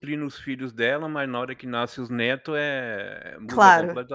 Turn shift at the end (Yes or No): Yes